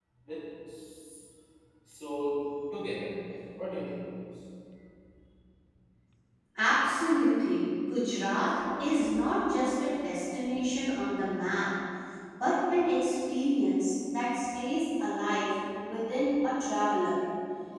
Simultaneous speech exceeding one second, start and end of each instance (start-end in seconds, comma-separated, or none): none